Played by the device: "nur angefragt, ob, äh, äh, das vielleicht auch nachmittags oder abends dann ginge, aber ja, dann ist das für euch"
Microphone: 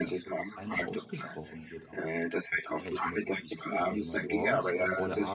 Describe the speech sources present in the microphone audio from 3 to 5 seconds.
both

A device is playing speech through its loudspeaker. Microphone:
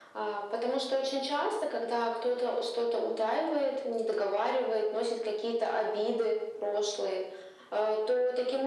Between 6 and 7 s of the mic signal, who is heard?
echo only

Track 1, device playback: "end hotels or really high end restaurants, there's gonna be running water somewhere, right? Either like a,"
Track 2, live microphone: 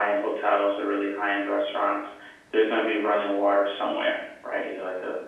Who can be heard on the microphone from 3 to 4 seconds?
echo only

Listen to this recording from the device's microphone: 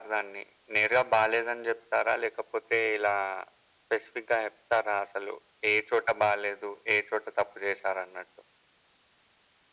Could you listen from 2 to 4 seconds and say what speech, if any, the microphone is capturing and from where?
echo only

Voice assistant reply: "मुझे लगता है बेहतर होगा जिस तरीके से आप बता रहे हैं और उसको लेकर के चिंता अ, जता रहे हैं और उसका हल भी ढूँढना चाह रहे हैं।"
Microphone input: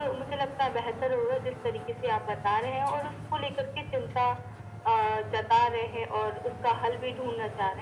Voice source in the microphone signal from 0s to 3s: echo only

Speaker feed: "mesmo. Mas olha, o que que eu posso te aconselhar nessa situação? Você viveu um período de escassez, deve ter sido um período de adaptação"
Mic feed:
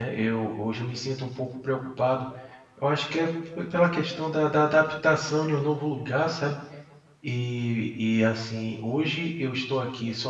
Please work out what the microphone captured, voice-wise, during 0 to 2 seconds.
user only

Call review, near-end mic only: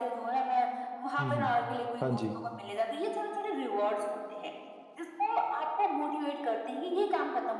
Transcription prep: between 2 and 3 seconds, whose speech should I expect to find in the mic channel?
both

